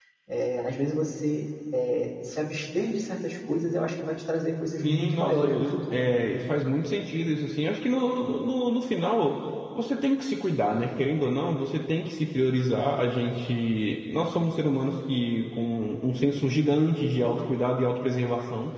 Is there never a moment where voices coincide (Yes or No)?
No